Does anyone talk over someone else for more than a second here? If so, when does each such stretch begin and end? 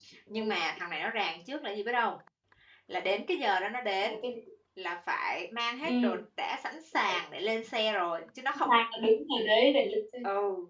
none

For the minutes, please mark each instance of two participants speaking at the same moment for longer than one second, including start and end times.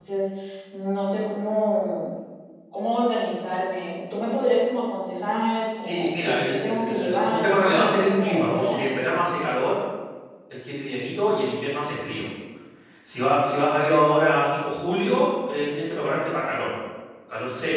5.8-8.8

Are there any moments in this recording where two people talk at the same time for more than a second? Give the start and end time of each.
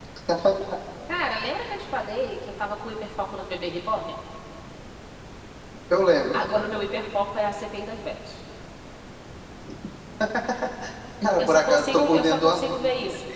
11.4-12.7

